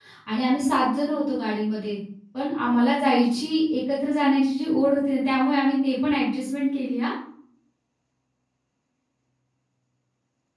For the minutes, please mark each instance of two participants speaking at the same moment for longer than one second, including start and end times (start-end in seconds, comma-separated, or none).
none